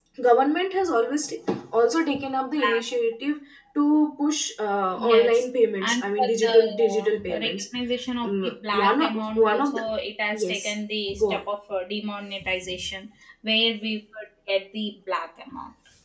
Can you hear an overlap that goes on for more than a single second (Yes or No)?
Yes